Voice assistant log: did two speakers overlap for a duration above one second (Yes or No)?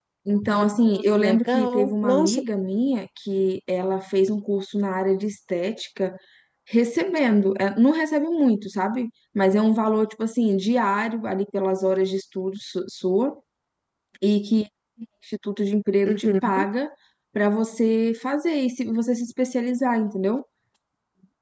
Yes